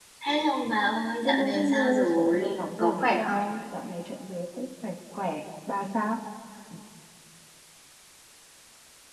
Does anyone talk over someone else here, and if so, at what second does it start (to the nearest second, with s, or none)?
1 s